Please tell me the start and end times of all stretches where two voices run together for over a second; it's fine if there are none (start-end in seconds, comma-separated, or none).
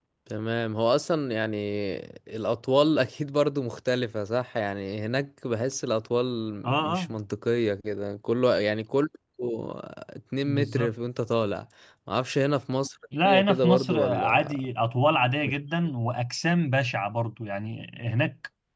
13.2-14.6